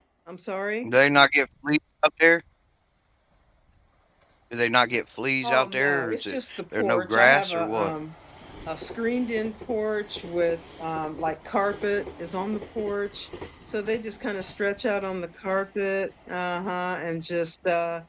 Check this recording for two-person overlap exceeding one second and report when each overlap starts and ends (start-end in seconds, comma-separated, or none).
5.4-7.9